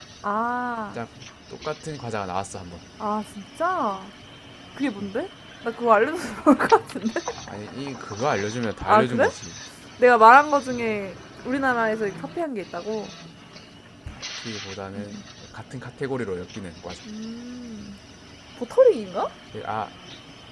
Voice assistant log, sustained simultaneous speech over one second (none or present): none